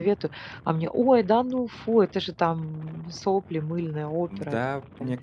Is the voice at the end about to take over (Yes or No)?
Yes